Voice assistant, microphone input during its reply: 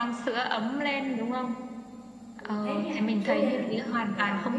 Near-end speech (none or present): present